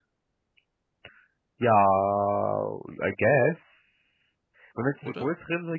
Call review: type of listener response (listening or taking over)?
listening